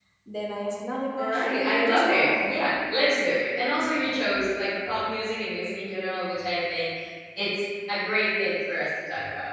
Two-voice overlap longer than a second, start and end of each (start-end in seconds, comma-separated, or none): 1.2-2.5